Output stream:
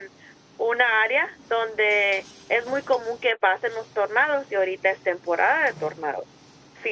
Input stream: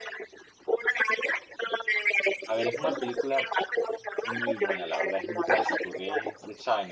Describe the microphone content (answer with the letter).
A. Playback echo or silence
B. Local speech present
B